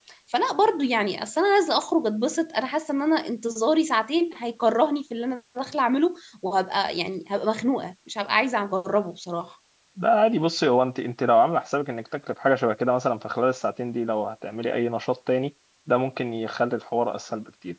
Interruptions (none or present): none